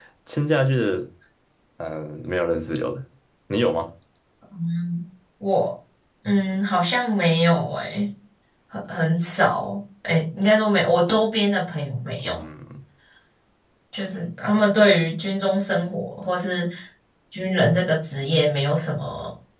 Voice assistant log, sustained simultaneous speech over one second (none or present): none